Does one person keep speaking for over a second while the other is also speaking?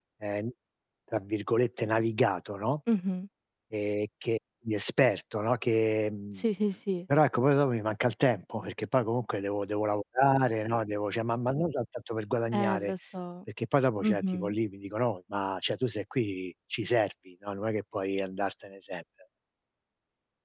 No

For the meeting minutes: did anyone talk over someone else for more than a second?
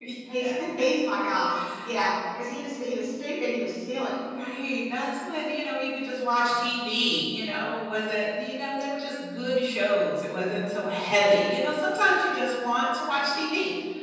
No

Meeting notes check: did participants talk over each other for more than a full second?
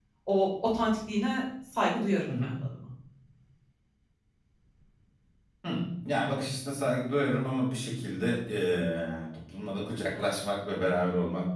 No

